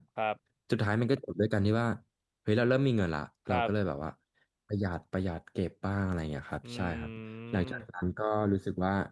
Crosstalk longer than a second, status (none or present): none